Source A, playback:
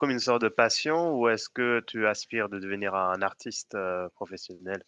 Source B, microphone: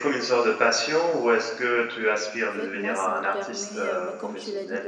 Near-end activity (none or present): present